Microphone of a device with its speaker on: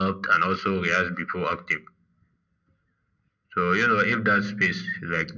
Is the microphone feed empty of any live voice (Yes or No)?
Yes